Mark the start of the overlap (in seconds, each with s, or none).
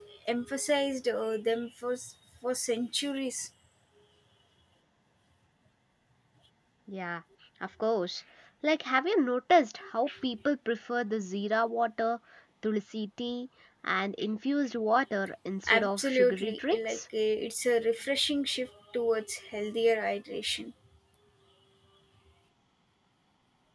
15.7 s